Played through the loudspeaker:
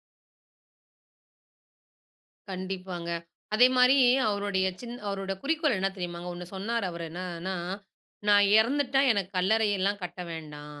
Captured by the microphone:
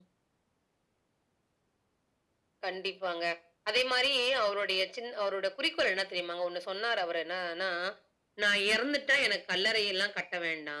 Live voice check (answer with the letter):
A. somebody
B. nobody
B